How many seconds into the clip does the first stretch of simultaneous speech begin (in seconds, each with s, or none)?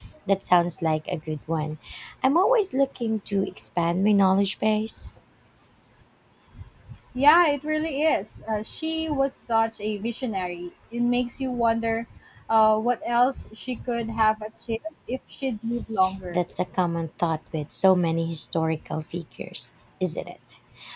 none